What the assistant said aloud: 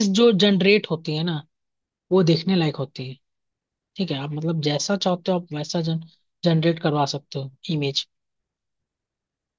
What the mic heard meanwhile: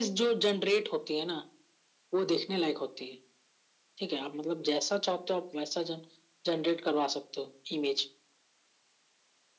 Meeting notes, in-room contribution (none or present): none